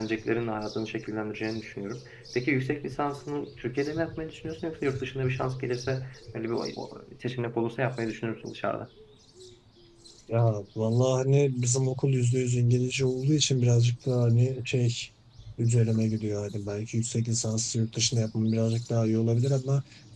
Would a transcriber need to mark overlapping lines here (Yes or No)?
No